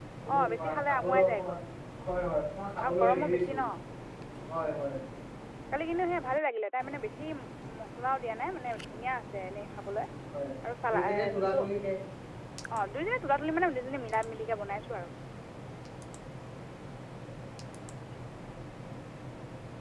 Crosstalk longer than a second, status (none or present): present